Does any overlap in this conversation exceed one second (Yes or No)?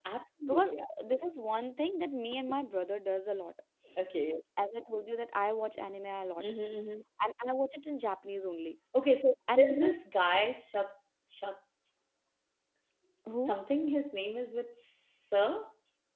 No